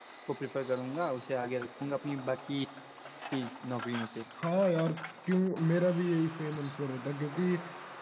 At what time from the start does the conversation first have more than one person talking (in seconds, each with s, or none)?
none